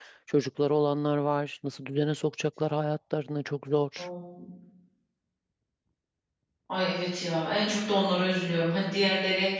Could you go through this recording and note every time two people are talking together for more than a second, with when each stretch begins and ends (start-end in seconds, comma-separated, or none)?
none